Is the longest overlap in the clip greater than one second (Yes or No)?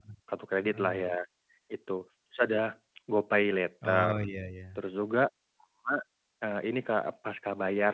No